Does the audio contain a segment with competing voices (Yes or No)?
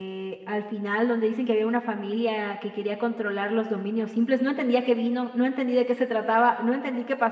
No